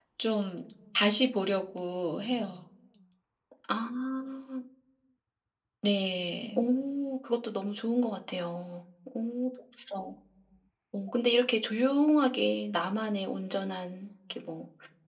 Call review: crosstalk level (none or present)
none